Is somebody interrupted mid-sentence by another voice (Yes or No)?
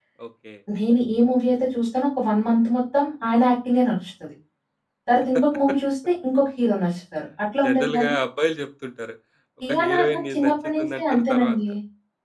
Yes